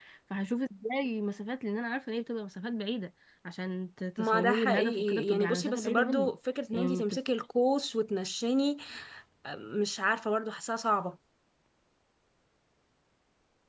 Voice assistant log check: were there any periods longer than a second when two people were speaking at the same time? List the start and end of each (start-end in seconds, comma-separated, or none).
4.2-6.3